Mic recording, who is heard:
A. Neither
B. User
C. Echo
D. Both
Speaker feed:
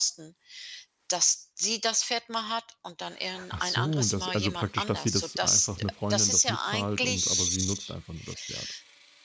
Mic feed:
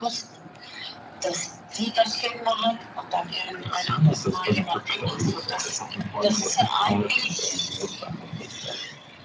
C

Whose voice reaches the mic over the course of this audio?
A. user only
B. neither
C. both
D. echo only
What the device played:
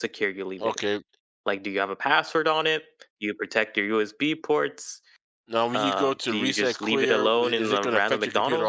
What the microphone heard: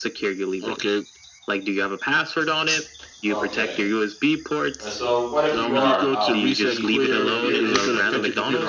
C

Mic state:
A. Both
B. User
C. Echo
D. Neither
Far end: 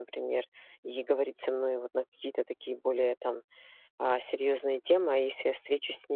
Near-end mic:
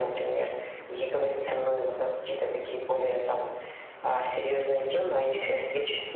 C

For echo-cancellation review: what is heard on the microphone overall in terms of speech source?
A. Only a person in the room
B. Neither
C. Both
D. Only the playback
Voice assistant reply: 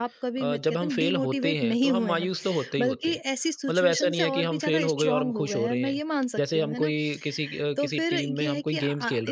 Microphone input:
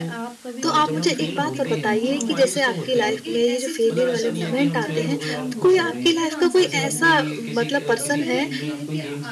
C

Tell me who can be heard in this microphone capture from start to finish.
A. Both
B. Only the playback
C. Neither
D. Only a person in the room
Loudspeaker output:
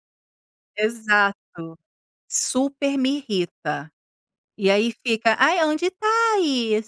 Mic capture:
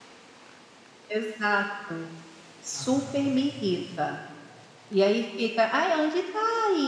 A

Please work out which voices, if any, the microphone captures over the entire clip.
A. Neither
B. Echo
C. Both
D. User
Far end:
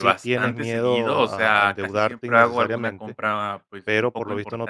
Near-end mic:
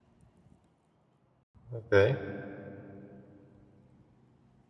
D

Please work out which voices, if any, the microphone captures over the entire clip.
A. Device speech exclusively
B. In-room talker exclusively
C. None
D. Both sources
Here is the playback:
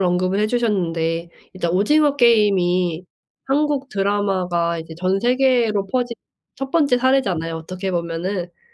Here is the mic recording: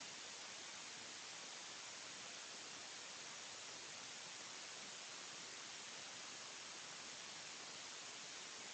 C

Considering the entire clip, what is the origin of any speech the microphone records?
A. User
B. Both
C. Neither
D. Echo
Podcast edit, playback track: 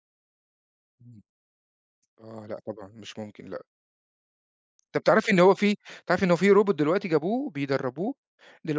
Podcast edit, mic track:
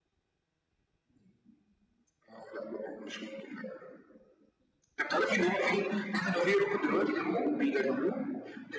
D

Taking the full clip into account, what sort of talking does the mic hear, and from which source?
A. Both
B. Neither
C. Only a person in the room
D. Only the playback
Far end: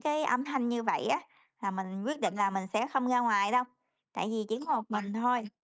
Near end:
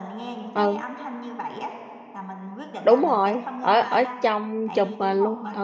A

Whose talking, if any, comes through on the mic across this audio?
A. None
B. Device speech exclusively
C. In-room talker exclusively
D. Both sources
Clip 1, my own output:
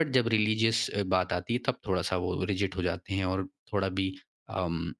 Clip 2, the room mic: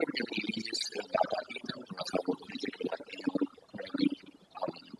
B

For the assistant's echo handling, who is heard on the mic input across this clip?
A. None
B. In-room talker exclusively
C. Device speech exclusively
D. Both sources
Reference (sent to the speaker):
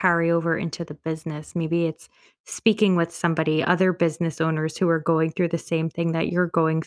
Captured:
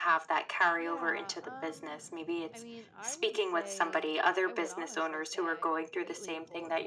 D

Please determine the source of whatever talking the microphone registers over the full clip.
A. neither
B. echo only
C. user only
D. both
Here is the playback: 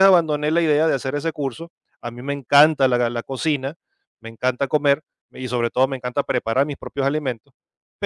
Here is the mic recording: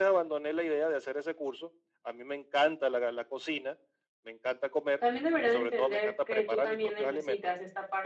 D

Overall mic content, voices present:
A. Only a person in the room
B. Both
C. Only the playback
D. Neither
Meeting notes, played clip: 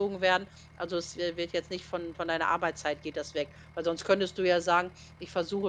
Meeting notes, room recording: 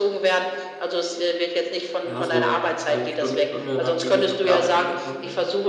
B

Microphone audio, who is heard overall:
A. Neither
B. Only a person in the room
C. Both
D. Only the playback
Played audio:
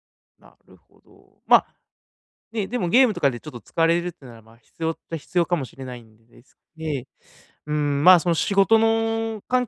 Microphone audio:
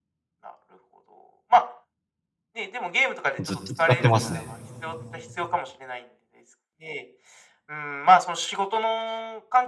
C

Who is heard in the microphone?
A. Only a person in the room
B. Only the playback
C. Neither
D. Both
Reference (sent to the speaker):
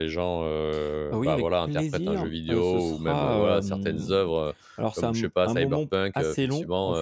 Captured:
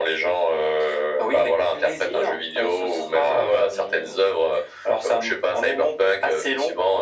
B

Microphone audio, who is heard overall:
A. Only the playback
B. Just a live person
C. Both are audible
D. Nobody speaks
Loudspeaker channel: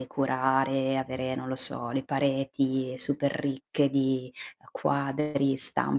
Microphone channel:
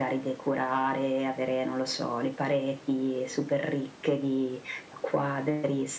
A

